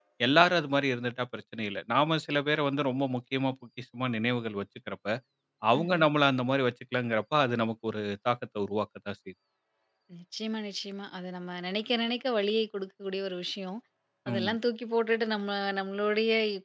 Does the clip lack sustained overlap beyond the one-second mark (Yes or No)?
Yes